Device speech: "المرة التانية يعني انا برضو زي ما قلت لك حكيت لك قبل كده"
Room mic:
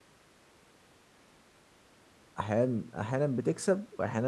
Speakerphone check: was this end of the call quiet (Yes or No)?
No